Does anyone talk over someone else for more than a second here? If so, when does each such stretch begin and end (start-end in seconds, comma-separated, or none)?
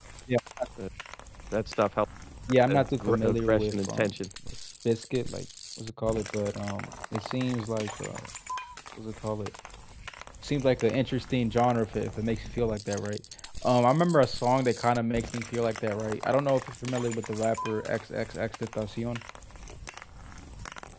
2.7-4.1